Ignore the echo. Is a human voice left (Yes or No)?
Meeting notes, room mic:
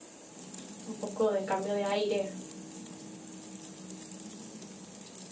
Yes